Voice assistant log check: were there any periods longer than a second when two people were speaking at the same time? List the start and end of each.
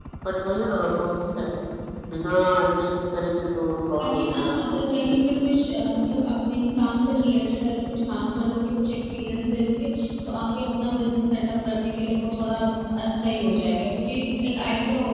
4.0-5.2

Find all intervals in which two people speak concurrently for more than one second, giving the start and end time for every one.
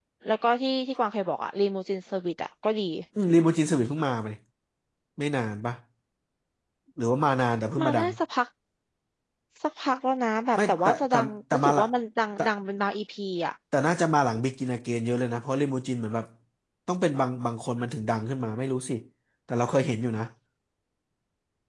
10.6-11.9

